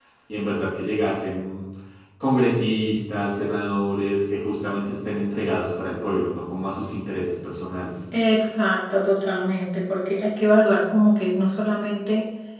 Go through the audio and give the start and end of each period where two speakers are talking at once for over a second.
none

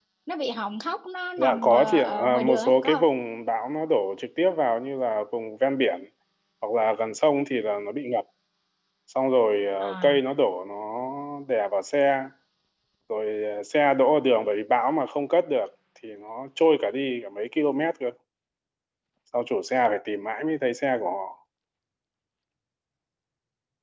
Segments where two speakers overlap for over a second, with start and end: 1.4-3.0

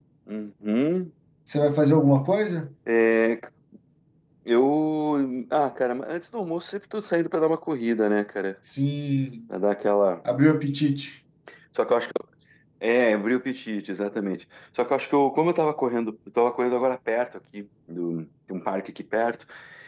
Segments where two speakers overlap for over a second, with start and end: none

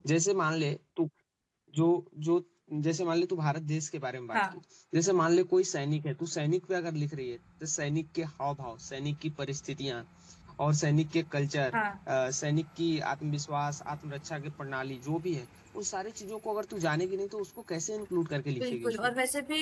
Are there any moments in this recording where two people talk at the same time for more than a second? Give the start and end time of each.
none

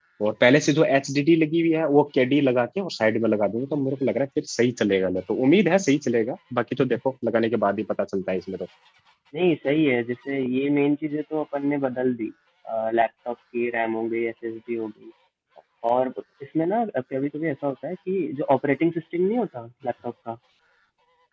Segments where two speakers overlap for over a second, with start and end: none

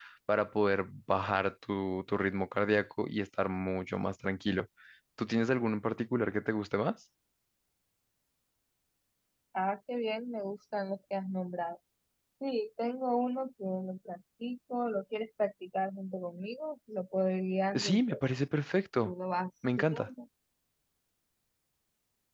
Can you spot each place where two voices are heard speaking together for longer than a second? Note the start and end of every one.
none

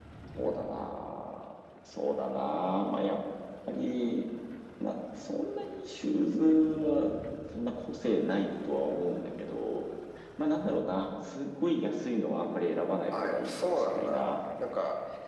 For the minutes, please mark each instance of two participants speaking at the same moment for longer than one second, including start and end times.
13.1-14.3

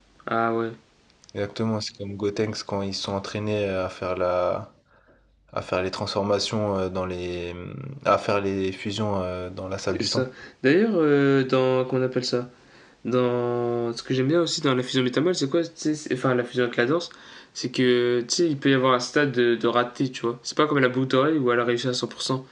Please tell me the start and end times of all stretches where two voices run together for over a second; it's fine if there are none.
none

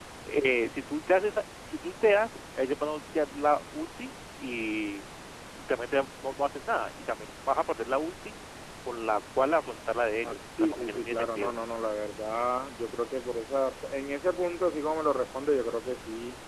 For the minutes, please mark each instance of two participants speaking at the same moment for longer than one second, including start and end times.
10.2-11.6

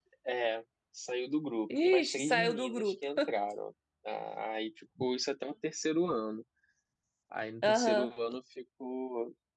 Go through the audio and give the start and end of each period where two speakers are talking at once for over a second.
1.8-3.0

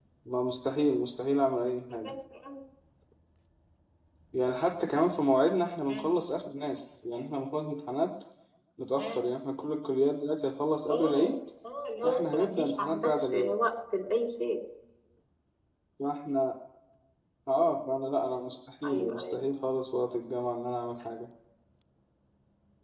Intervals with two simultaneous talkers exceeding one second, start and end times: 12.1-13.5

